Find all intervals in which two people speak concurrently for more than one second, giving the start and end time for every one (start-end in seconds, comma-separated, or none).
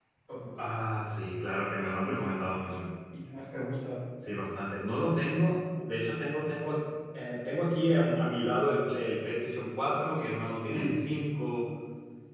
none